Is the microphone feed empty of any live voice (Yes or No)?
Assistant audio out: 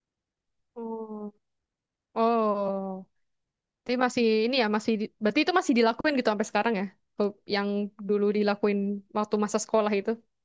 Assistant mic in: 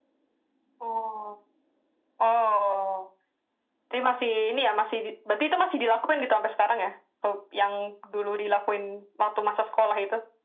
Yes